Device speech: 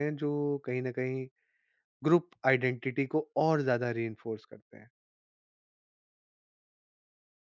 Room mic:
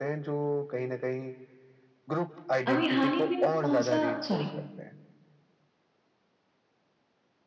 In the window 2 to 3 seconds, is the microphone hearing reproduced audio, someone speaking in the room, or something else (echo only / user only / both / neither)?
both